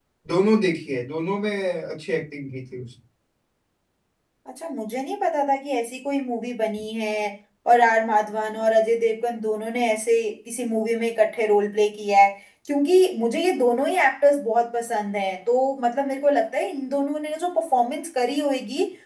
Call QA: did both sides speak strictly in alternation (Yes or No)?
Yes